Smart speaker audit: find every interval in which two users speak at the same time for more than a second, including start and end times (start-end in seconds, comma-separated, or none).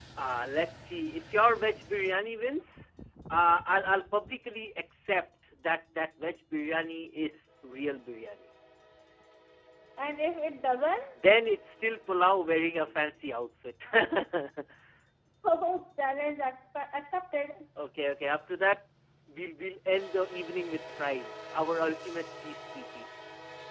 none